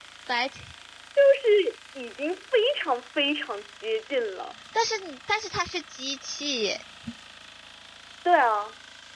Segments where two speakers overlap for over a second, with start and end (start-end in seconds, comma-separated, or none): none